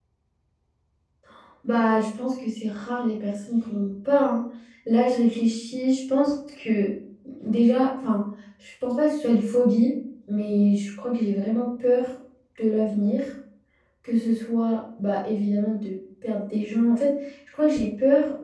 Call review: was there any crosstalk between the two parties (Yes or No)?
No